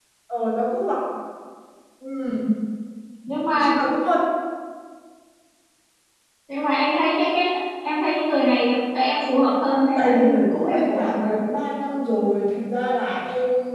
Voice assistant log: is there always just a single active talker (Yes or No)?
No